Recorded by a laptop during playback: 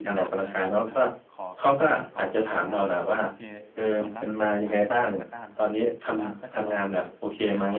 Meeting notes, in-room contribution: present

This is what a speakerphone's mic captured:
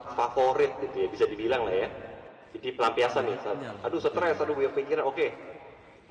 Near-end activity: present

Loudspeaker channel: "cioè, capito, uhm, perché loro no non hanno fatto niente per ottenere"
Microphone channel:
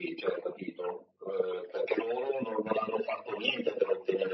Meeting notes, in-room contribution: none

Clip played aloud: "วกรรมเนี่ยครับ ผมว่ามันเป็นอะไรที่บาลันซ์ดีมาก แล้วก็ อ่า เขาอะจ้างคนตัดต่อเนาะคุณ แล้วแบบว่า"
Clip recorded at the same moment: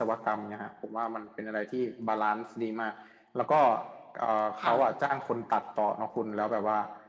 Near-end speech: present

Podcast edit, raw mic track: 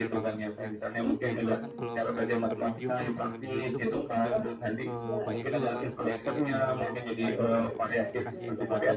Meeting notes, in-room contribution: present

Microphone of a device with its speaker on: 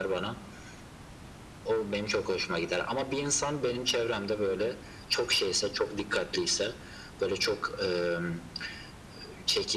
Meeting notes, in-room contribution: none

